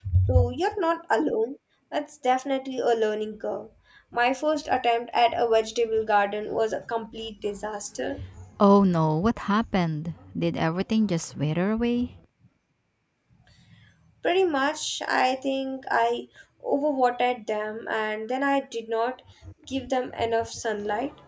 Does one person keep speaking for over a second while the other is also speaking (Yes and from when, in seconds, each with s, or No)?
No